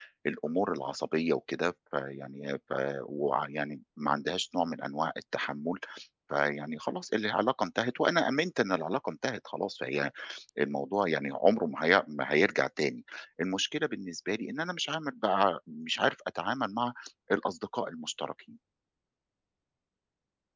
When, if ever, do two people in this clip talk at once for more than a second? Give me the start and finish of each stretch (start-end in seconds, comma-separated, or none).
none